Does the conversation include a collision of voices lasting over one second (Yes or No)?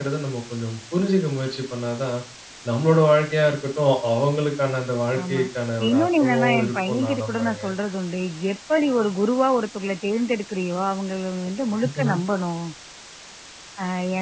Yes